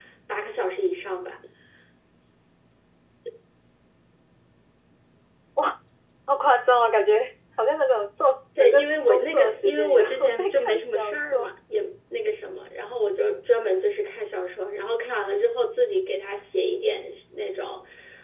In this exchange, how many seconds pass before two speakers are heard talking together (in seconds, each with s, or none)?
8.6 s